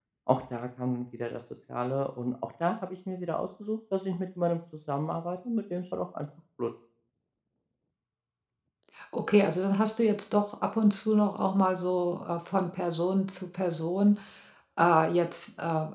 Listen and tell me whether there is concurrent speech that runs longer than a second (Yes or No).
No